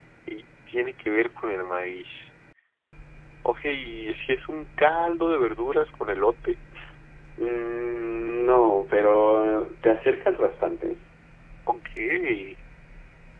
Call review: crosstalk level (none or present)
none